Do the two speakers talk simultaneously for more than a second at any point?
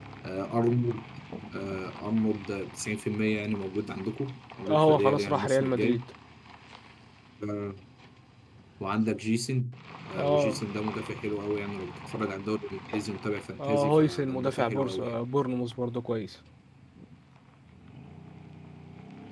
Yes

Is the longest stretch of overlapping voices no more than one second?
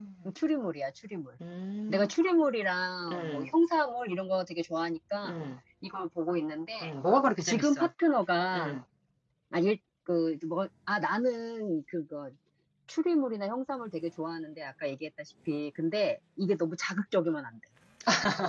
Yes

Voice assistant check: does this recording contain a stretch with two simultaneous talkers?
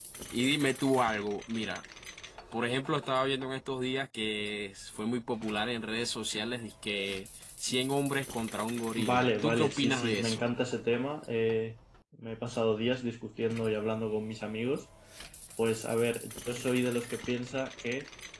Yes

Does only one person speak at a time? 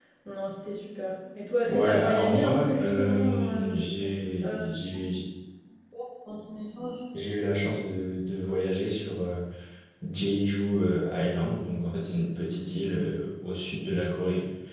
No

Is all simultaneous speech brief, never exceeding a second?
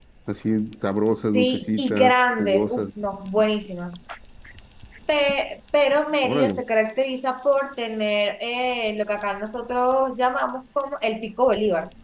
No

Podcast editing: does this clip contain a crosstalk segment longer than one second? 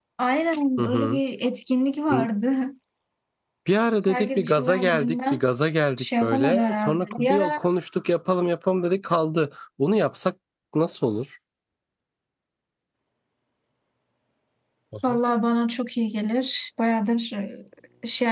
Yes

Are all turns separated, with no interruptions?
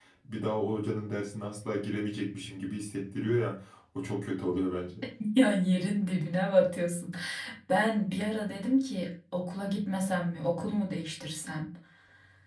Yes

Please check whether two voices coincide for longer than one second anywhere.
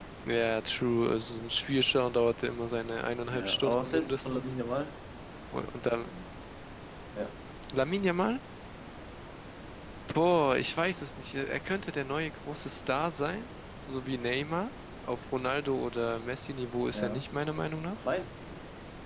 Yes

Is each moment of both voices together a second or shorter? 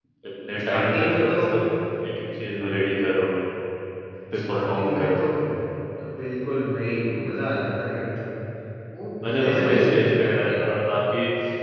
No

